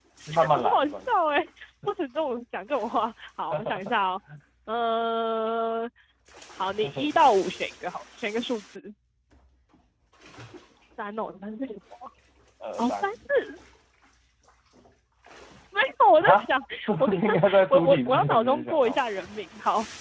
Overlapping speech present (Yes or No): Yes